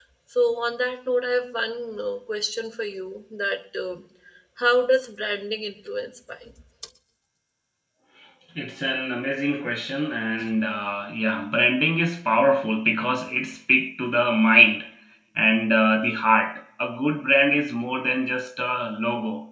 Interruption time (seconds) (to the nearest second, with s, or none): none